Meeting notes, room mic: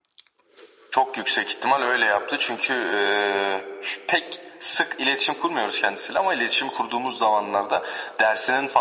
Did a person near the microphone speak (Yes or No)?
No